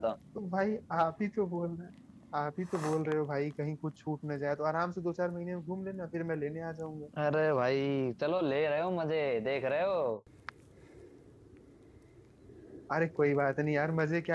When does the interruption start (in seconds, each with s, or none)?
none